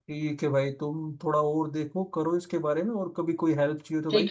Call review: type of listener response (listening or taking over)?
taking over